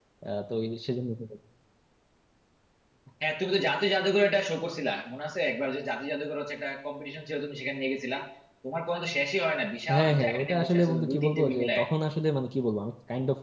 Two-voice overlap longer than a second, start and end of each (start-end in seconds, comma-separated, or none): 9.9-11.8